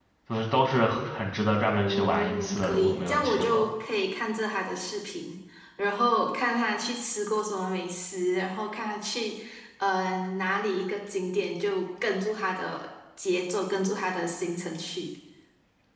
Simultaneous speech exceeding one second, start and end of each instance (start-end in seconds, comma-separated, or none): 1.7-3.7